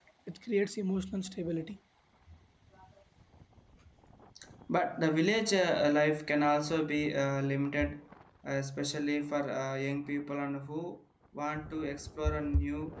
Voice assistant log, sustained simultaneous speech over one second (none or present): none